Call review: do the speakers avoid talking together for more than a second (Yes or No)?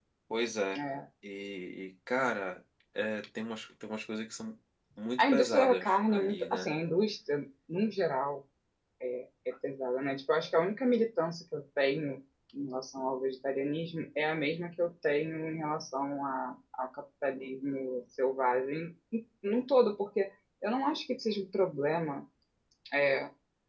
No